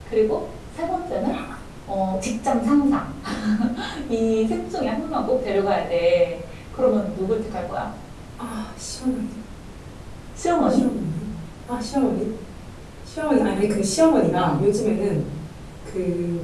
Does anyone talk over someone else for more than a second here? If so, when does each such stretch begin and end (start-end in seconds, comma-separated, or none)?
none